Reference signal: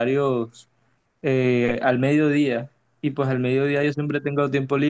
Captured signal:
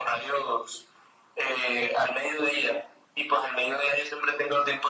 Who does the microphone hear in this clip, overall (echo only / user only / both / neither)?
echo only